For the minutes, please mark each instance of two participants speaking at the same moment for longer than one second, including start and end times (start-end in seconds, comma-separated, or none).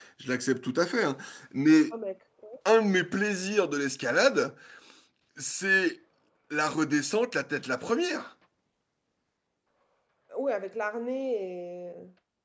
none